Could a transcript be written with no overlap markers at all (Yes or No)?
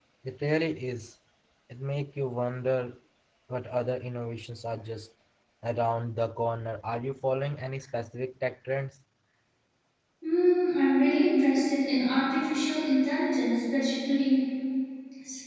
Yes